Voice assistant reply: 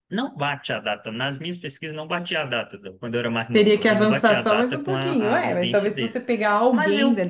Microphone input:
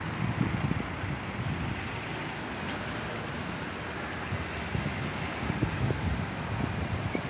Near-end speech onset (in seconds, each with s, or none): none